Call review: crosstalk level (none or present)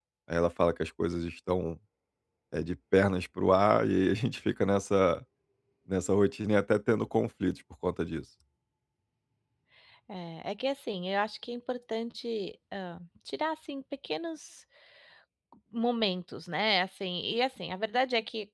none